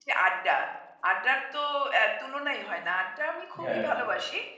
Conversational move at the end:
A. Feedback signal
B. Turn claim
A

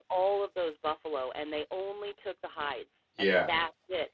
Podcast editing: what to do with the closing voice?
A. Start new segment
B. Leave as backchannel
B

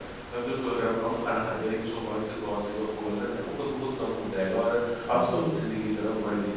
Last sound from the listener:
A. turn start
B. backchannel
B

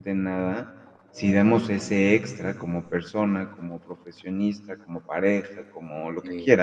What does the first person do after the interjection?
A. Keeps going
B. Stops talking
A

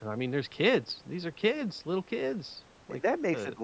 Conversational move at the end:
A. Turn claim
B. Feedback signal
A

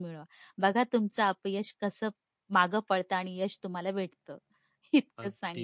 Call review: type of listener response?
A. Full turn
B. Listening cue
A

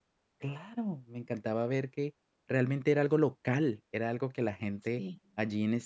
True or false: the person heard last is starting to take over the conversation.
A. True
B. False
B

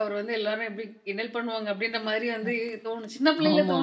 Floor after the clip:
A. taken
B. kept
B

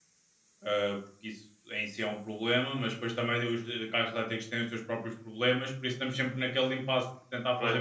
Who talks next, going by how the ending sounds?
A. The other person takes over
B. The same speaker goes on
B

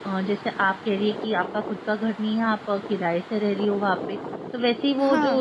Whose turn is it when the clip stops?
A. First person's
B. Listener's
A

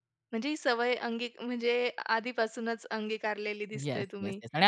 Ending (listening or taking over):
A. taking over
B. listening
A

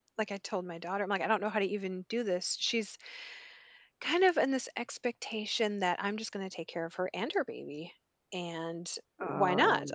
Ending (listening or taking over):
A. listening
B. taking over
A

